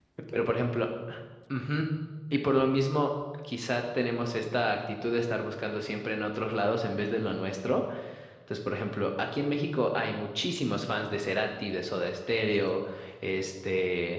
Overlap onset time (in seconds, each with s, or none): none